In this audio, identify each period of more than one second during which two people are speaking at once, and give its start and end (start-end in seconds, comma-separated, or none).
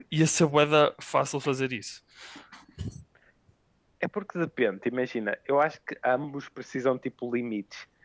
none